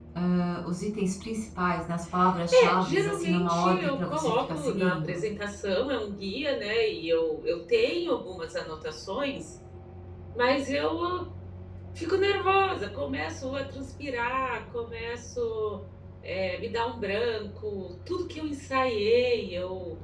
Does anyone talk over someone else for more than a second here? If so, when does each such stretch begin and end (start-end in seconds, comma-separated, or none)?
2.5-5.2